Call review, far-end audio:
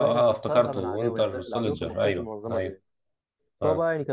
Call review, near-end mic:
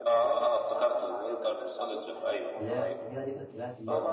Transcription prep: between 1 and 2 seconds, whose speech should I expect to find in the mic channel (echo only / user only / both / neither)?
echo only